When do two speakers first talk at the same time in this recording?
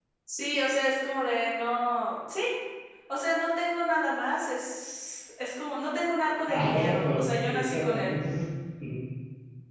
6.5 s

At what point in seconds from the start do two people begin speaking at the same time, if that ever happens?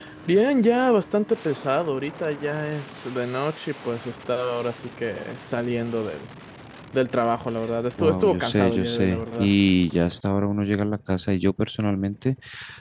8.0 s

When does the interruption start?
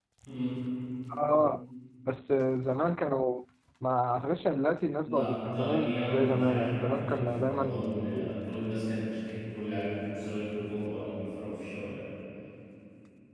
5.0 s

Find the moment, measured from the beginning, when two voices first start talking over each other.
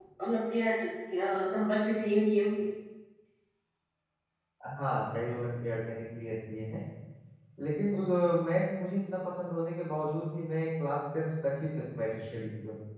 none

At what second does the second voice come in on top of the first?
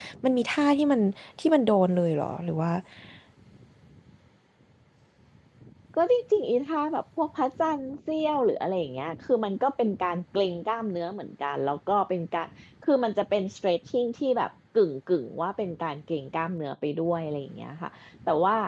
none

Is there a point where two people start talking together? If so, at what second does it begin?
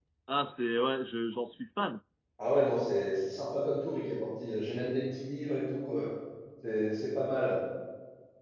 none

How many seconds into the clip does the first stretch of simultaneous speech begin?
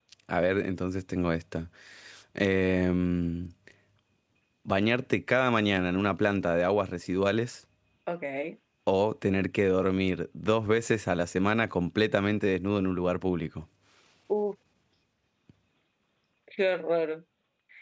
none

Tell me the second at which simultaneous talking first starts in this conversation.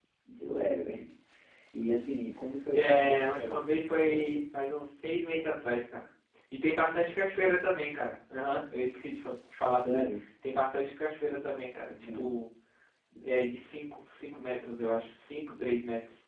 2.7 s

